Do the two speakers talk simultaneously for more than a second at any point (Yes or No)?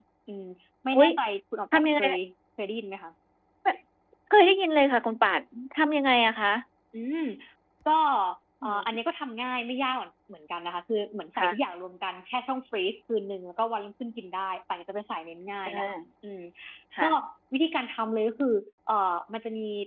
No